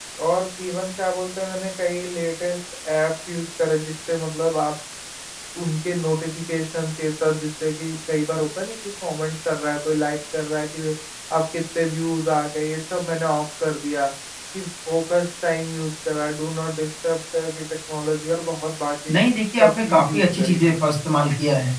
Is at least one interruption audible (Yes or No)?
Yes